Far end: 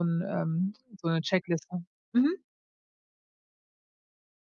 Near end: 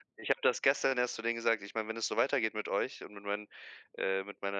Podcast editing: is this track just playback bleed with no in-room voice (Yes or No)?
No